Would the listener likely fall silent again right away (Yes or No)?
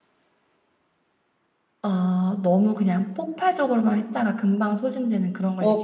No